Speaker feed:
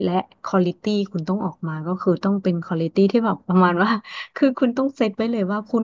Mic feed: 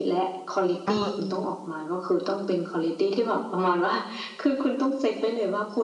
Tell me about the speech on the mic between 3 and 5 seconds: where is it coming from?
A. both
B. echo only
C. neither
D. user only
B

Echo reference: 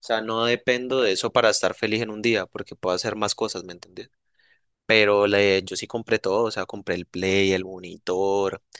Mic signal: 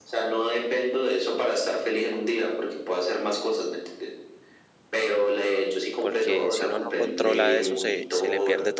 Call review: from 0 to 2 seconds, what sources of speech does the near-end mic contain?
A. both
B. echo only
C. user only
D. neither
B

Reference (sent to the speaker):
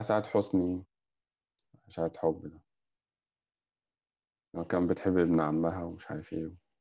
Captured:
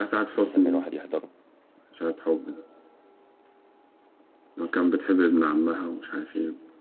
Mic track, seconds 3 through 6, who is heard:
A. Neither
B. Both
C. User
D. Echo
D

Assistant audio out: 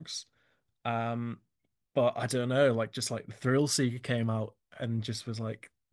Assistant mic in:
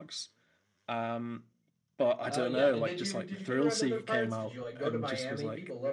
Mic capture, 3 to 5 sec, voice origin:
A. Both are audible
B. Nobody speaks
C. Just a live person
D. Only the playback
A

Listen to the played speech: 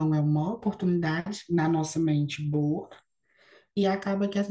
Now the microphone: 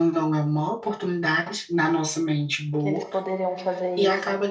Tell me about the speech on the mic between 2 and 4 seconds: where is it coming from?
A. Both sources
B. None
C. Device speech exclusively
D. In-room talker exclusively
A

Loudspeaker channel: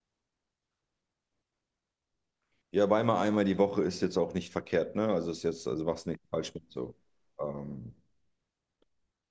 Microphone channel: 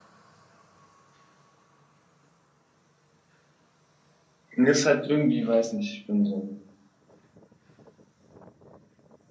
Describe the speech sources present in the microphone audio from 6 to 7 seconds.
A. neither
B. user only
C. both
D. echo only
B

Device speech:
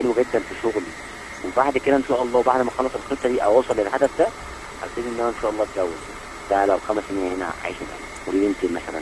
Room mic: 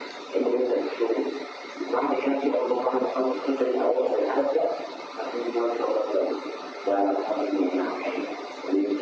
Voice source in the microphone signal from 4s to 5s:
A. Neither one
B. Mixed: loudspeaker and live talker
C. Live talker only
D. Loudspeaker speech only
D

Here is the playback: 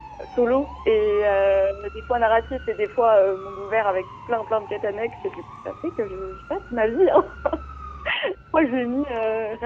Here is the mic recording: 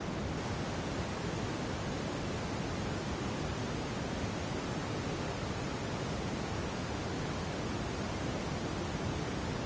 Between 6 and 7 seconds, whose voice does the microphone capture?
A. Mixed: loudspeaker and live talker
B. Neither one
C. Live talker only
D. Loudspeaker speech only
B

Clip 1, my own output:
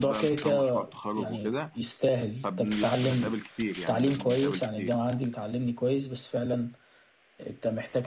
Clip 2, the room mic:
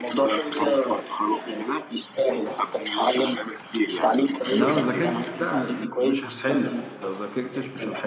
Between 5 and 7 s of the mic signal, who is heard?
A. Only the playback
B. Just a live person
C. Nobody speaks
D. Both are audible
D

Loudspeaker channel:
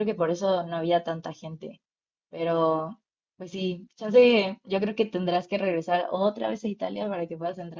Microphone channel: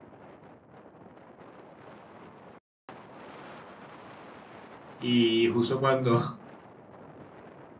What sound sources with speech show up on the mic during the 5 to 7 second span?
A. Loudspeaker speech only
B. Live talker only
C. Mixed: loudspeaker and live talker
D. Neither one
B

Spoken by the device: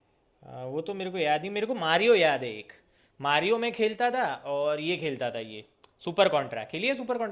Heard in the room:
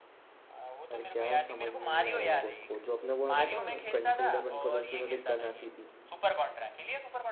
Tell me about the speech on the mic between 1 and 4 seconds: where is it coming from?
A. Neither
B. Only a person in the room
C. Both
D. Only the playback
C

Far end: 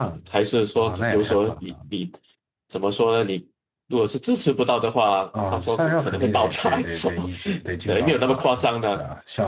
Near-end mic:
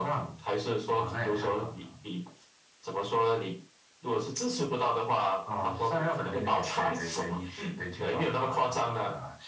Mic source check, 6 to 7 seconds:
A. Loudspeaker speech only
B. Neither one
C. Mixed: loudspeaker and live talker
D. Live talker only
C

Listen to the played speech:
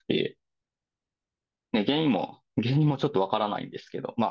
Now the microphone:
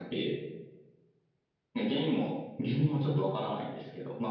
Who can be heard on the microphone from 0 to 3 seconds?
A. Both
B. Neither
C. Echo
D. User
C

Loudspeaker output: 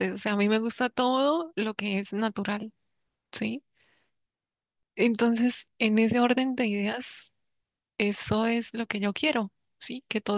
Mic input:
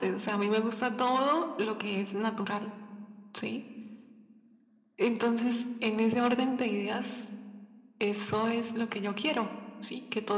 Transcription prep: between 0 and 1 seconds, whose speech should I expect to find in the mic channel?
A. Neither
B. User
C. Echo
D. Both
C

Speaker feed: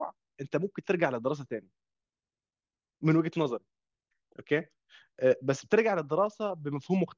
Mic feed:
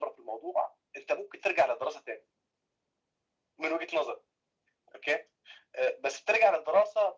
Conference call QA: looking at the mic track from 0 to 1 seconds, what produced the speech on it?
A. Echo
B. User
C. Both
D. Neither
A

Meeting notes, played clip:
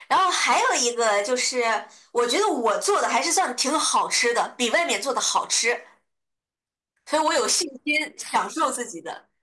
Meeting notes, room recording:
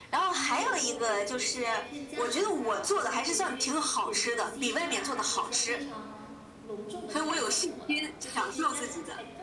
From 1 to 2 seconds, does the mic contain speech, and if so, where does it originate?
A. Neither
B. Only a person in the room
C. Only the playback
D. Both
D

